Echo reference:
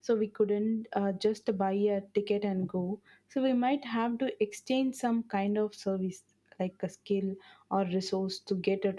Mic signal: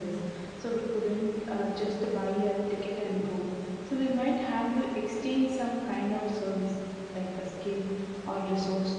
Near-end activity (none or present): none